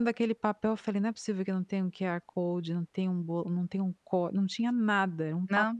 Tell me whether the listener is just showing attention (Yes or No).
Yes